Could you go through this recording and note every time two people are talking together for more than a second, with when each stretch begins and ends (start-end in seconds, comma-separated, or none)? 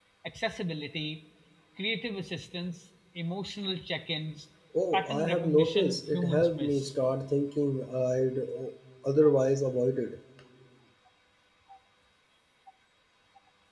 4.9-6.9